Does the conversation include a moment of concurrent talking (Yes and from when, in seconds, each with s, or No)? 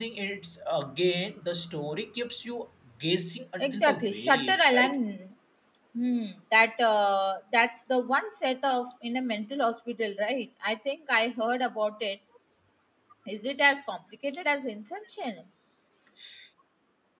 Yes, from 3.6 s